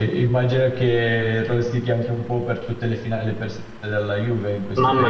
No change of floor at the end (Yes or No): No